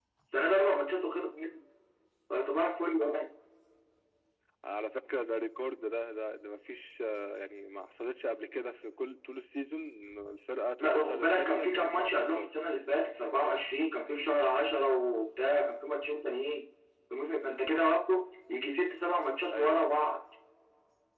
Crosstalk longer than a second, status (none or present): present